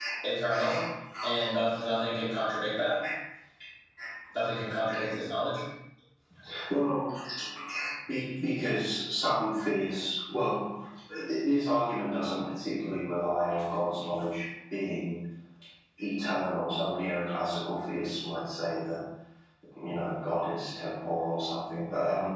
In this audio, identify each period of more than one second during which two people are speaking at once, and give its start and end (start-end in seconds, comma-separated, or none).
none